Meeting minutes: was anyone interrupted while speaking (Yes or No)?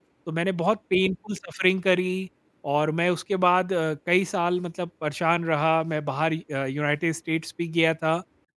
No